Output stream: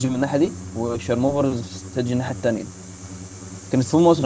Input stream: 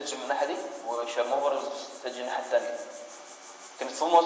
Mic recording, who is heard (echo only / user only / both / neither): echo only